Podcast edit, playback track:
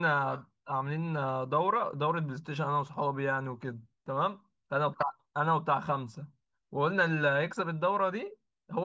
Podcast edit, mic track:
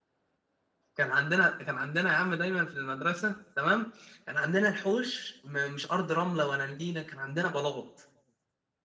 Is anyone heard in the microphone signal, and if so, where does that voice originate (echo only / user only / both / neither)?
user only